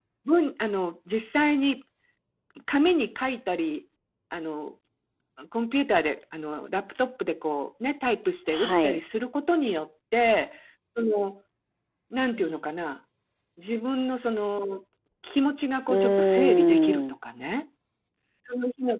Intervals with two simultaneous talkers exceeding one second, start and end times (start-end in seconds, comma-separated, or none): 15.9-17.1